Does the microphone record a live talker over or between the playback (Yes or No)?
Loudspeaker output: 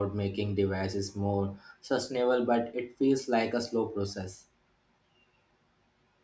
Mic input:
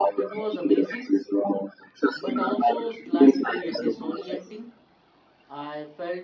Yes